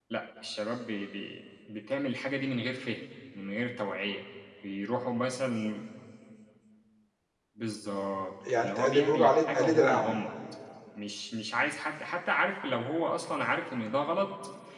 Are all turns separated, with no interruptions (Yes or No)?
No